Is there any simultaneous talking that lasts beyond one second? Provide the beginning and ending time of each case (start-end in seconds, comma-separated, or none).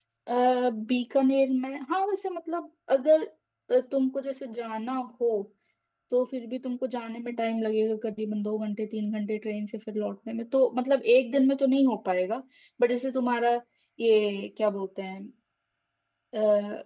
none